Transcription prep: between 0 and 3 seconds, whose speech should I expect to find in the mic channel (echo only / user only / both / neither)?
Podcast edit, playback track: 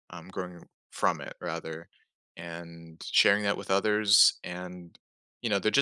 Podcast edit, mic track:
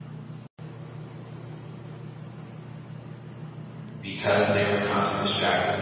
neither